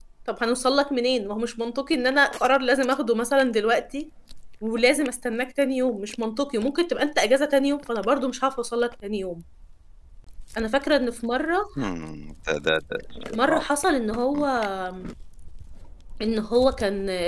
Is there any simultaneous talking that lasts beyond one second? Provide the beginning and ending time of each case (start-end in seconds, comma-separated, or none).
none